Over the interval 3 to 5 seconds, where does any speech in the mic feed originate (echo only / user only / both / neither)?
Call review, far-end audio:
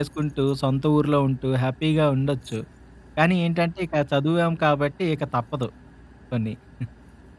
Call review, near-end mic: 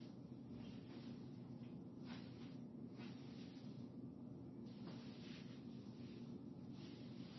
neither